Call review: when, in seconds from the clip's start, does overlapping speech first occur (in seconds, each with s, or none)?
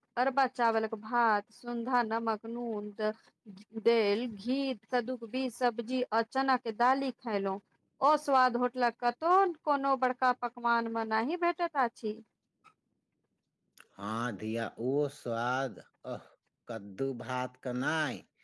none